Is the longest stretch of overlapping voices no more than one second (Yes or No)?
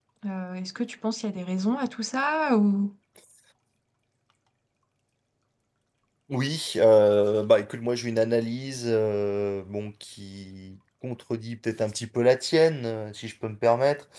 Yes